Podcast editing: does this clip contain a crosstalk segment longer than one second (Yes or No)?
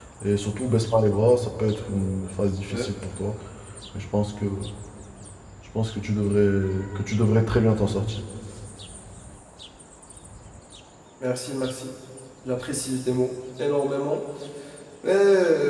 No